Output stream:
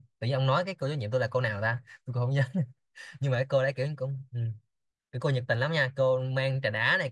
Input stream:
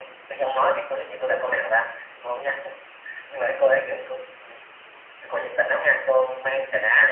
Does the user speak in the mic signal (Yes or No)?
No